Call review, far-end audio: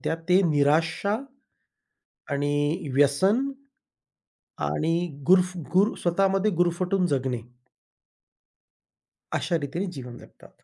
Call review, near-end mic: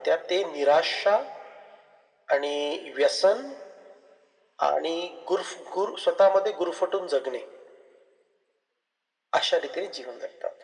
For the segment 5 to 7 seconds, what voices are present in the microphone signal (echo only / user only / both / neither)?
echo only